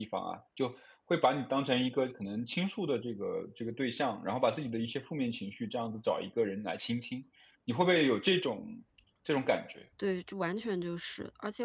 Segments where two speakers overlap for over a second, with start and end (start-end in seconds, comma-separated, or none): none